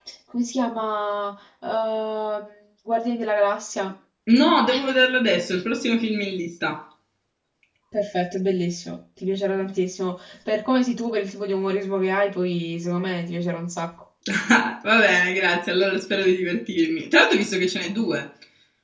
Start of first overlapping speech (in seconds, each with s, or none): none